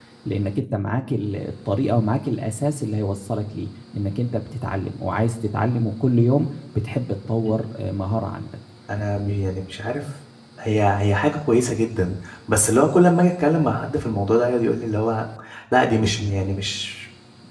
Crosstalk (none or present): none